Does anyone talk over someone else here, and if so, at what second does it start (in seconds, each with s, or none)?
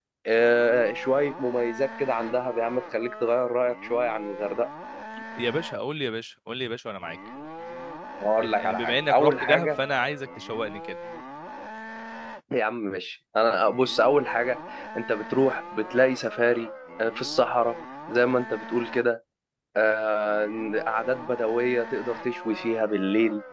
8.4 s